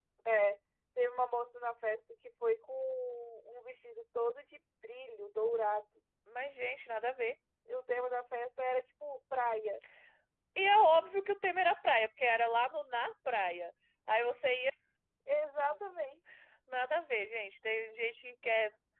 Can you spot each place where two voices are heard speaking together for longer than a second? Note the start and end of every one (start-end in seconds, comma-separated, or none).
none